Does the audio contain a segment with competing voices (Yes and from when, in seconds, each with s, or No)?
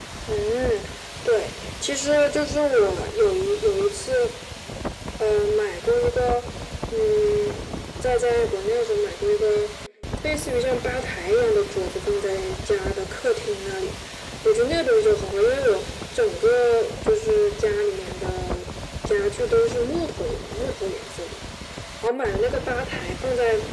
No